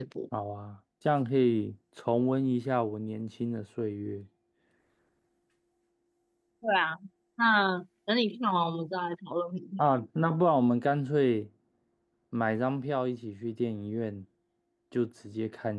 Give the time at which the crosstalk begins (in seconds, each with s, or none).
none